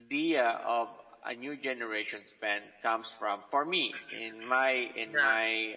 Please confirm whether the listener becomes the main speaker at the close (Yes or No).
No